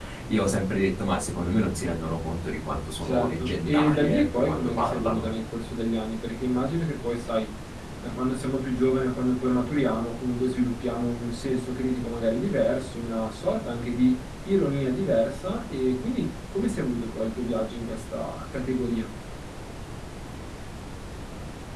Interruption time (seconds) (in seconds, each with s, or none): 3.0 s